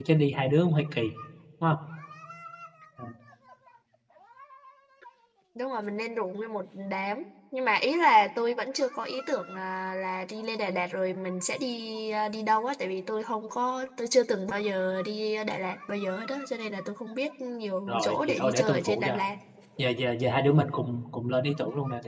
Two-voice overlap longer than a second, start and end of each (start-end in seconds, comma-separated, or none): 17.9-19.2